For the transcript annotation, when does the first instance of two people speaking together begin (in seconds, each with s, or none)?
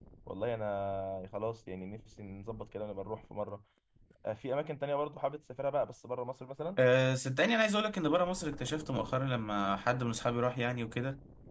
none